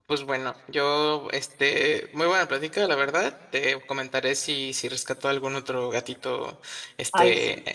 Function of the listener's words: listening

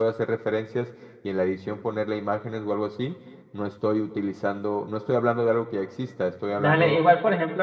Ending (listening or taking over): taking over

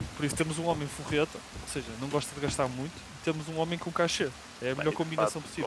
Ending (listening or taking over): taking over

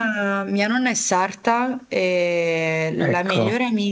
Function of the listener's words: listening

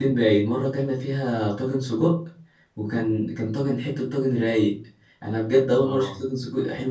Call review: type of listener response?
listening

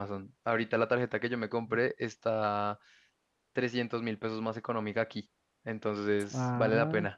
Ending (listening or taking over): taking over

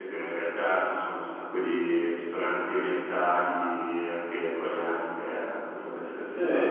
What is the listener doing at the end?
taking over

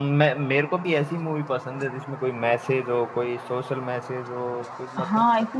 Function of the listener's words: taking over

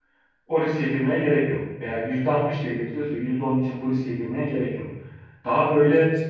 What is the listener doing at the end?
listening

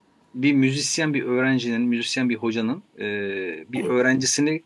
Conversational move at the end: listening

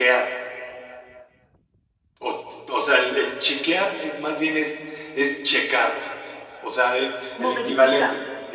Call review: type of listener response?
listening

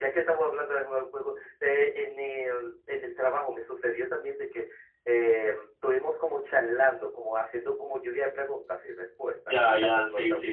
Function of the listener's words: taking over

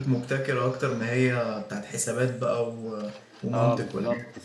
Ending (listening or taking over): taking over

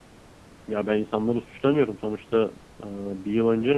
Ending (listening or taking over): taking over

